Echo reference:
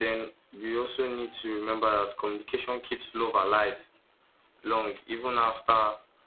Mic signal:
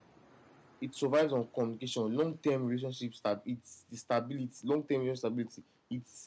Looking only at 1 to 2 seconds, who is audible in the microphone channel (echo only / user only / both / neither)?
user only